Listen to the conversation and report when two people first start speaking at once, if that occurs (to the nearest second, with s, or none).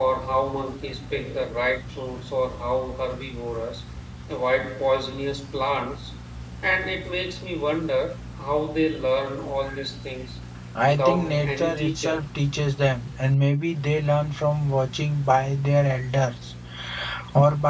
11 s